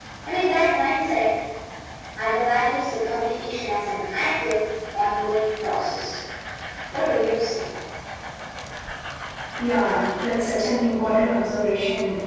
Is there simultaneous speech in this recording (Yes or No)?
No